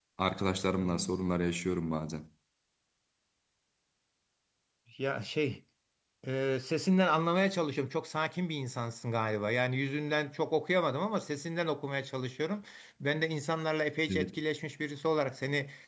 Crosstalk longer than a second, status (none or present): none